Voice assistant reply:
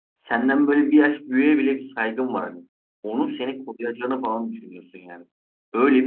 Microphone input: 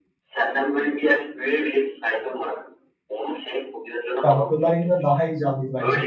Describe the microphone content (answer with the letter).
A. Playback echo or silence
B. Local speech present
B